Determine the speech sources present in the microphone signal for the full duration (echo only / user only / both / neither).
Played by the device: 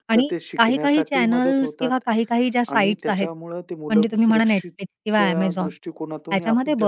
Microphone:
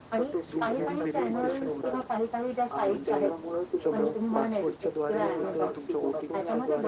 both